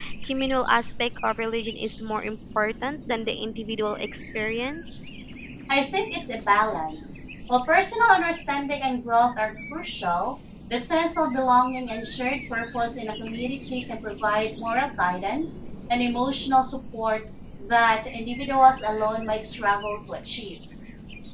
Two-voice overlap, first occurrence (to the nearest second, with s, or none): none